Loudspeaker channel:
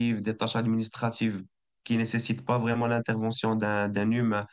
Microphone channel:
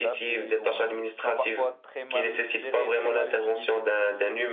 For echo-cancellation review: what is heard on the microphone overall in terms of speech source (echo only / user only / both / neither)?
both